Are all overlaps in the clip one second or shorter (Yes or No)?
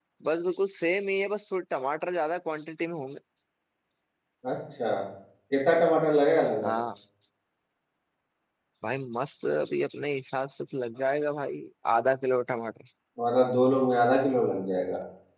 Yes